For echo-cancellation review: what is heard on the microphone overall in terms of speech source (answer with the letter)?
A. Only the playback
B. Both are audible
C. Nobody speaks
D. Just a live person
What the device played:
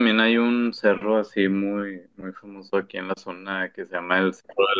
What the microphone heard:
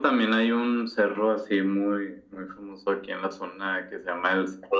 A